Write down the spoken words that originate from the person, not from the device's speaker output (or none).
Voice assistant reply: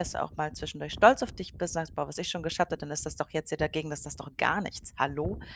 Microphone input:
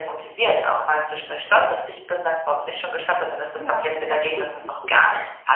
Ja auch gut, mhm.